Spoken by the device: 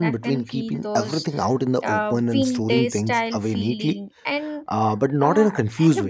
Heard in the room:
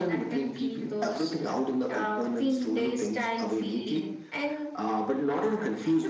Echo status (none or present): present